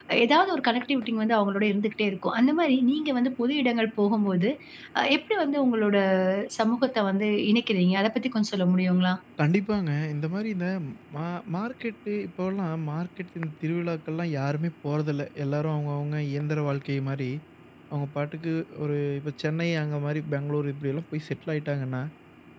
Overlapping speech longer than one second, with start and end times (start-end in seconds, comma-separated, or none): none